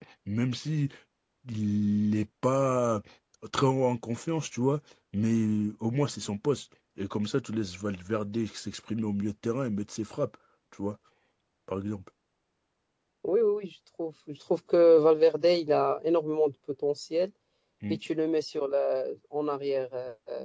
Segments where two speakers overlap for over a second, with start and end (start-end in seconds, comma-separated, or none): none